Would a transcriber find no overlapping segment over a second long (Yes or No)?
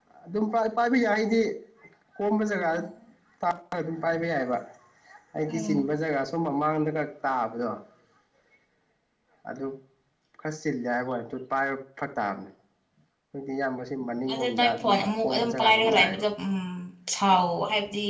No